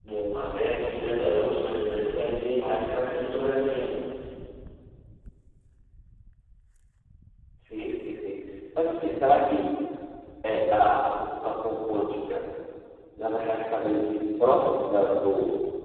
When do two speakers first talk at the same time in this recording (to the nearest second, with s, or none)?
none